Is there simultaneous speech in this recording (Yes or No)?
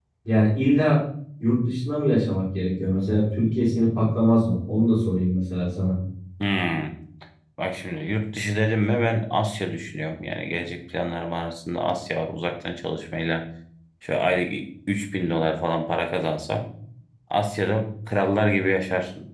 No